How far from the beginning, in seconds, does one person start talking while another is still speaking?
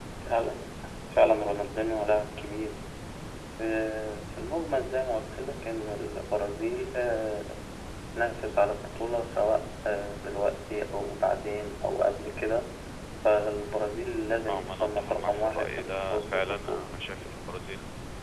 14 s

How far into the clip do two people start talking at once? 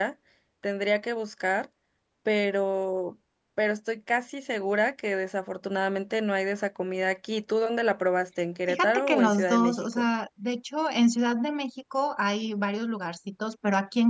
9 s

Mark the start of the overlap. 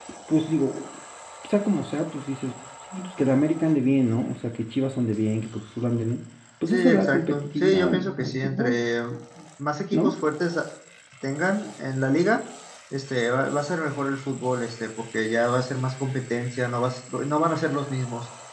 7 s

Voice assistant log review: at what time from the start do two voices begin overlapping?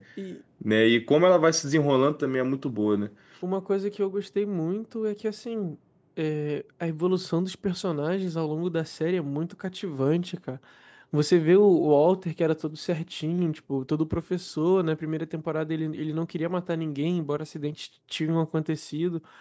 none

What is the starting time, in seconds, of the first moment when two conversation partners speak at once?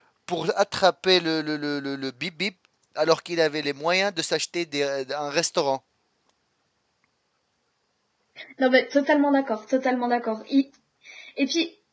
none

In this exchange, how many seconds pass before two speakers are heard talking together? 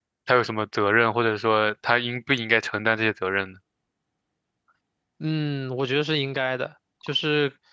none

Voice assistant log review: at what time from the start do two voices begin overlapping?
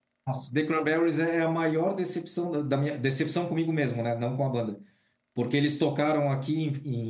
none

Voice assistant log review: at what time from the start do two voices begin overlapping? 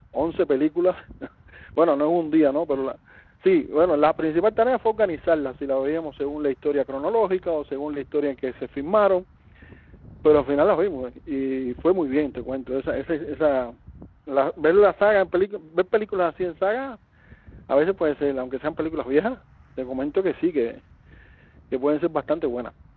none

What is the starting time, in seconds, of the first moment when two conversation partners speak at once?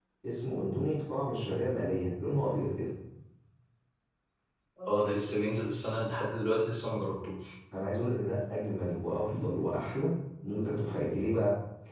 none

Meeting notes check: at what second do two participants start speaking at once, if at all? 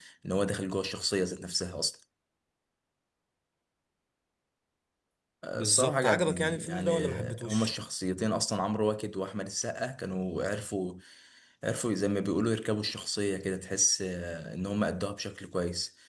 6 s

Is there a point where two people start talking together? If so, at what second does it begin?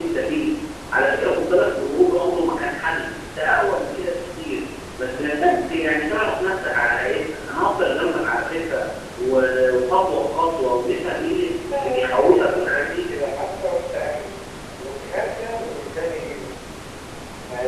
12 s

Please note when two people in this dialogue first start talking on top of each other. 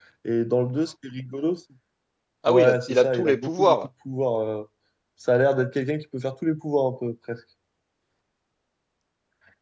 2 s

